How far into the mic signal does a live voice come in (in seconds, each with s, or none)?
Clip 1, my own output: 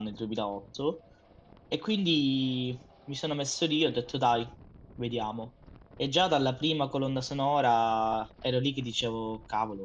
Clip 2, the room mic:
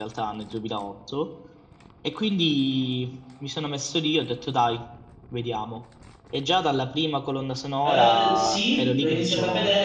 7.8 s